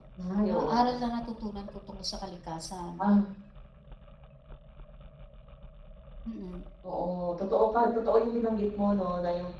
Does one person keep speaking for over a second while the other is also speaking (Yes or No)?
No